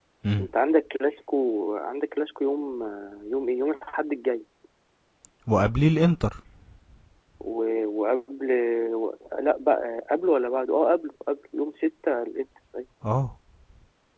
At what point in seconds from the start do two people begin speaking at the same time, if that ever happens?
none

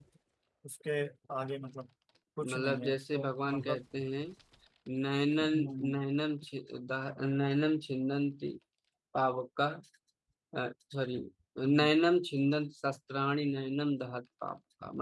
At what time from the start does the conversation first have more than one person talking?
2.5 s

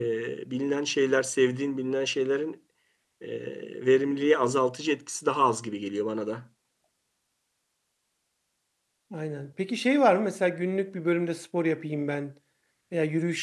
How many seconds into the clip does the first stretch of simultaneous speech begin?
none

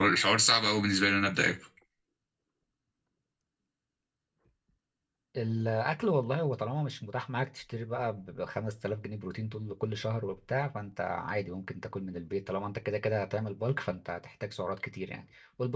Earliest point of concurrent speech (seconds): none

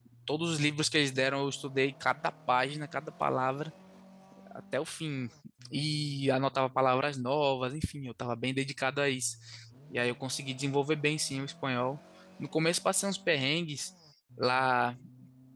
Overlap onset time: none

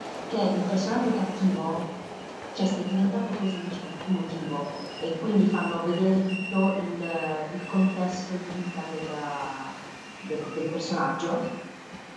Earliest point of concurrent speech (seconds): none

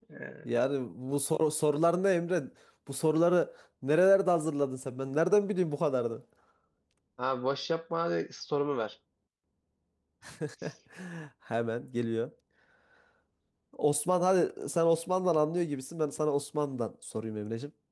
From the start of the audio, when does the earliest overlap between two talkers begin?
none

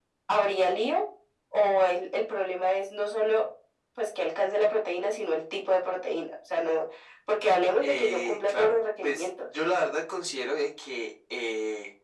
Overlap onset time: 7.8 s

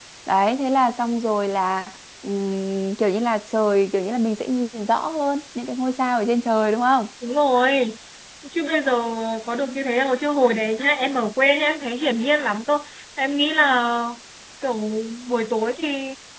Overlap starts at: none

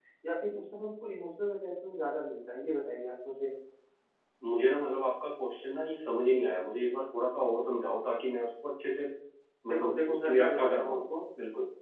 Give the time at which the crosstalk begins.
9.7 s

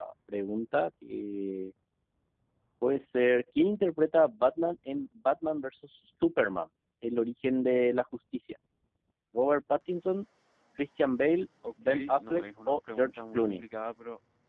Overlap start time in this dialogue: 11.6 s

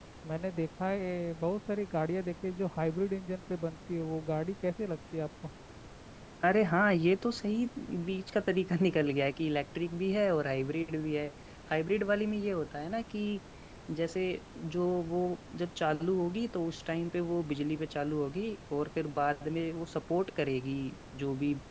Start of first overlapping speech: none

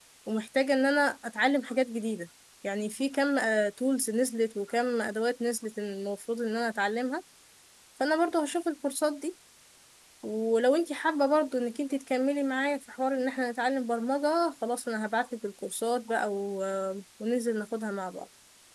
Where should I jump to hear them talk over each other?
none

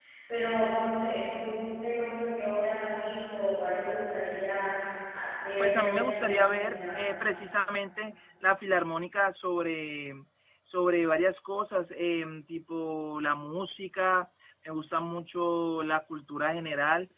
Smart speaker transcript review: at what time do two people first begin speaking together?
5.6 s

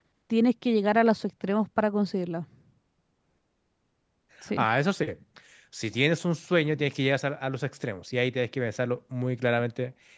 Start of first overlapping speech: none

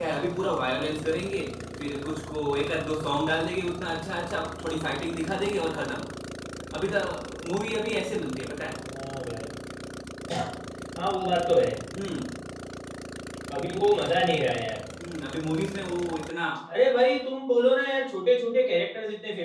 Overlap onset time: none

